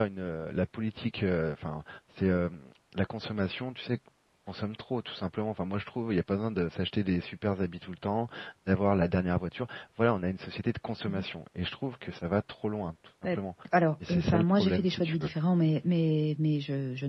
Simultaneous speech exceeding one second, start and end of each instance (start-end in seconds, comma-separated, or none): 14.1-15.3